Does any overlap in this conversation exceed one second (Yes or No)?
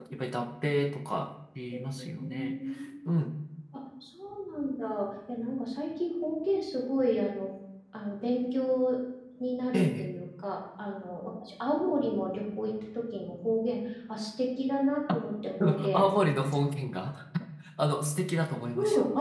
No